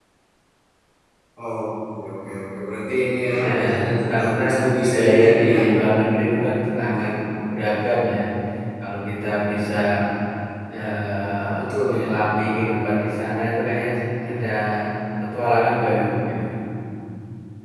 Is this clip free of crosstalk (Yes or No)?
No